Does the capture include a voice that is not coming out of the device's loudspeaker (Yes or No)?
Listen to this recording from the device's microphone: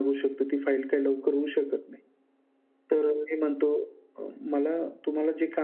No